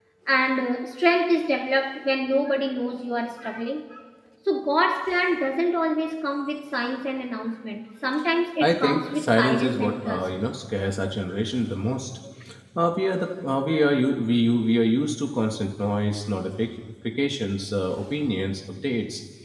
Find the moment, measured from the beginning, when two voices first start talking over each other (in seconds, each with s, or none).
8.6 s